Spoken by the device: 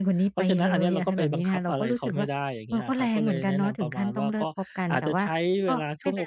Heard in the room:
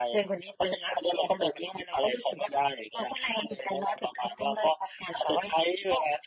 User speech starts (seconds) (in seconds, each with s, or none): none